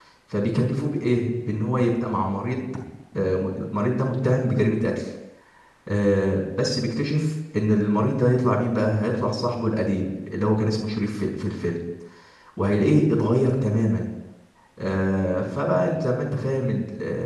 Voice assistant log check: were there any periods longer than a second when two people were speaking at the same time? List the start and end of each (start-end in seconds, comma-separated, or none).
none